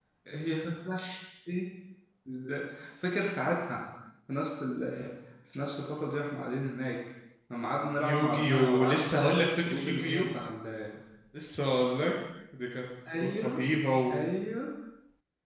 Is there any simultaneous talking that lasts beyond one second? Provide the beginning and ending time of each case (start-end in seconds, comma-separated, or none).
8.0-10.2